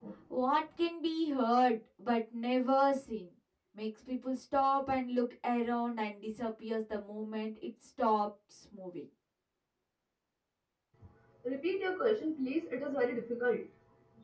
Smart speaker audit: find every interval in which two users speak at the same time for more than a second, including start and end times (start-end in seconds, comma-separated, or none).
none